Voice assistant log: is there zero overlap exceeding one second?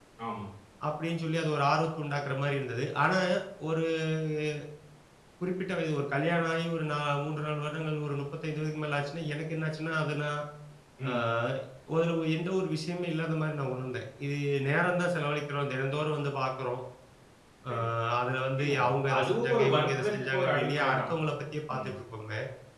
No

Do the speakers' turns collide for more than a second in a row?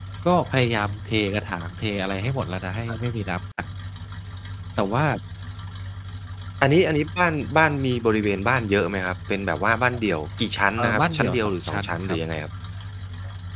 Yes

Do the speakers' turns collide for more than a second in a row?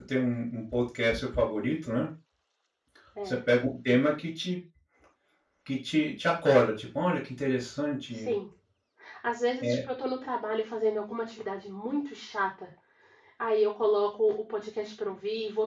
No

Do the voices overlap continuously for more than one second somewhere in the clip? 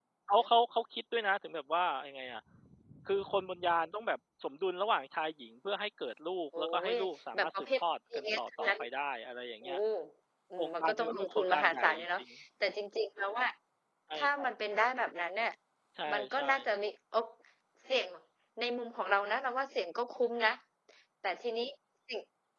Yes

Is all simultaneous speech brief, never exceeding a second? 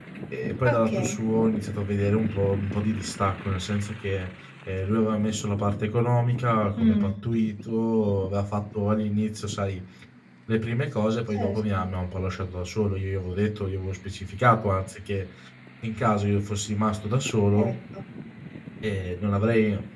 Yes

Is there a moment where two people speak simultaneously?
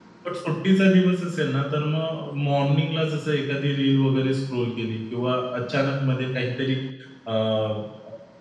No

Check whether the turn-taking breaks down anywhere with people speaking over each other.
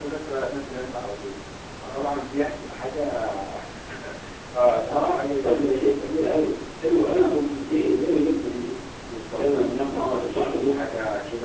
Yes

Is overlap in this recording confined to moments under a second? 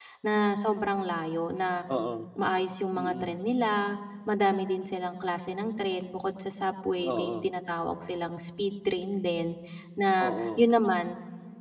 Yes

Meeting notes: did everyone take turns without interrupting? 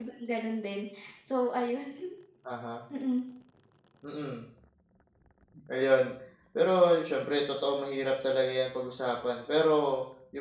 Yes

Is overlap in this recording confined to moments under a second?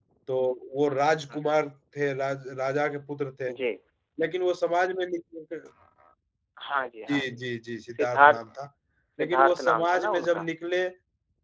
No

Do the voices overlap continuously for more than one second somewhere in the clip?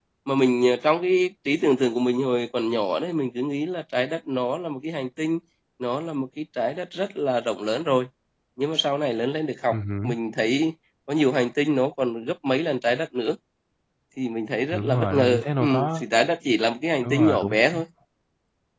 Yes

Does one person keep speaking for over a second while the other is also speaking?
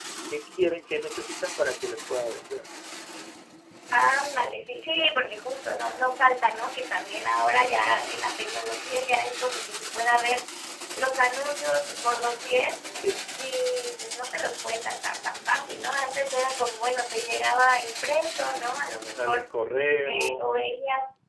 No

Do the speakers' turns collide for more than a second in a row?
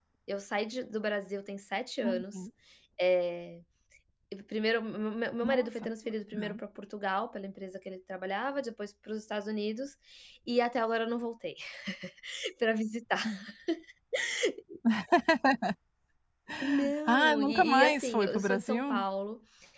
Yes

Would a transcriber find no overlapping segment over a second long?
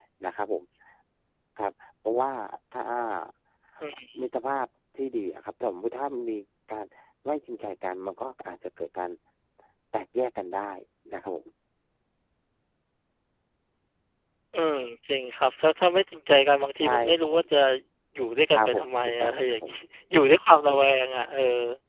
No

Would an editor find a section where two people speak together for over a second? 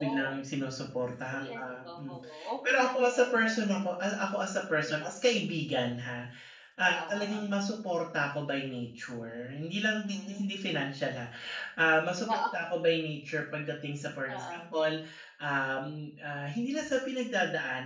Yes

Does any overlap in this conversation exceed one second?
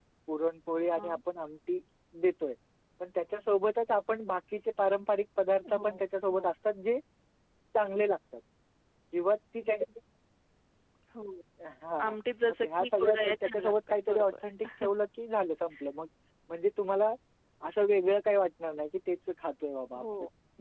Yes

